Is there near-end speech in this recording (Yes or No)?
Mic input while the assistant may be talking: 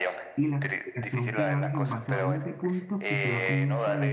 Yes